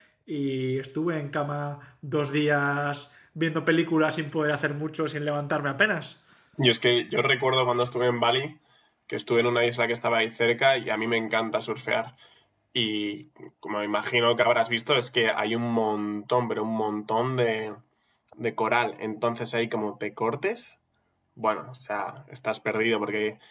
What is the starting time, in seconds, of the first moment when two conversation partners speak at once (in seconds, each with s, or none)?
none